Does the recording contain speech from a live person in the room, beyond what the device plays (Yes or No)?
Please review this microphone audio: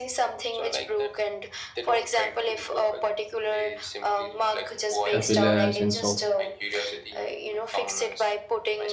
Yes